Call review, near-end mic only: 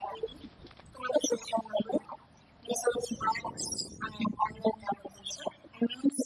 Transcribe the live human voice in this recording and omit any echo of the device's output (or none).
none